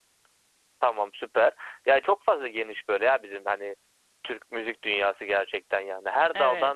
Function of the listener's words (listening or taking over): listening